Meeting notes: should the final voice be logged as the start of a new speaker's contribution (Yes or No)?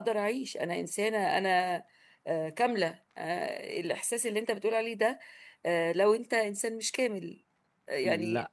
No